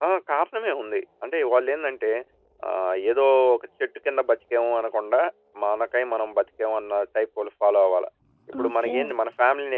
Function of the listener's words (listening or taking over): listening